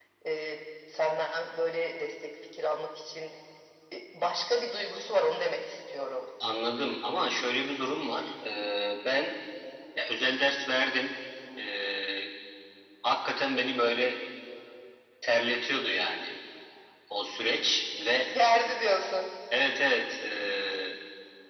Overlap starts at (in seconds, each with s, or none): none